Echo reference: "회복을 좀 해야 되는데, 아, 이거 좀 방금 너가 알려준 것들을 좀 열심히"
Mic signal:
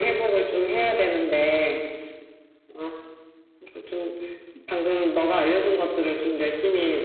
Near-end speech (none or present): none